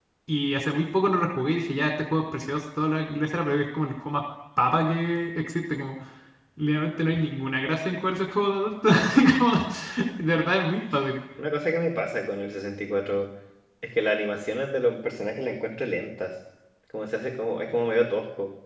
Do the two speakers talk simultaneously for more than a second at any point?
No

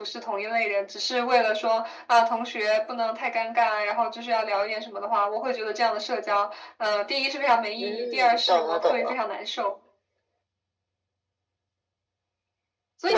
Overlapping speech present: Yes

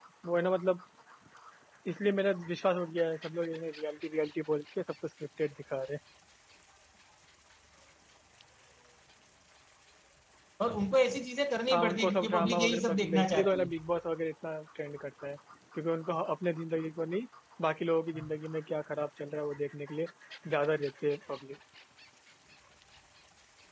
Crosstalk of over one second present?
Yes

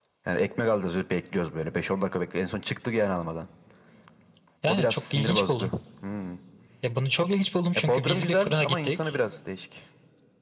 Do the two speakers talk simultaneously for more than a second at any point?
Yes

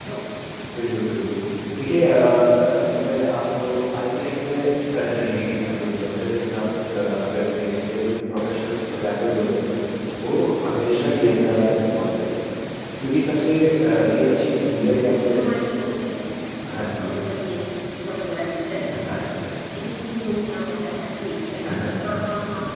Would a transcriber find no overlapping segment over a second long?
Yes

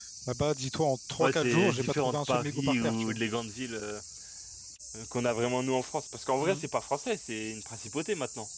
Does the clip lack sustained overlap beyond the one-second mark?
No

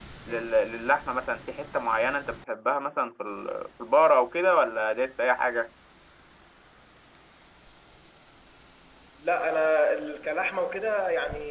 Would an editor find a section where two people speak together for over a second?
No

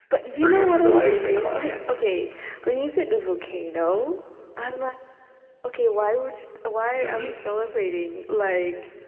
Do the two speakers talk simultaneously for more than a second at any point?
Yes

